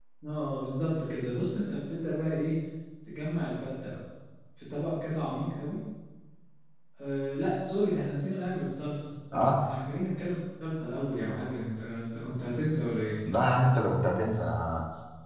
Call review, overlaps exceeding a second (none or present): none